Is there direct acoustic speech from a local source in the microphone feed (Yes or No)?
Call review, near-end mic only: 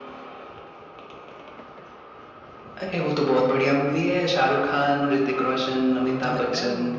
Yes